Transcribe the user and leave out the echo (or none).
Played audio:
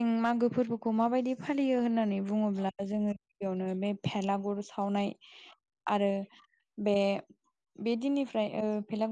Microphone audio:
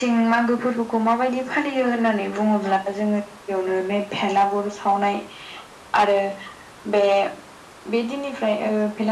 none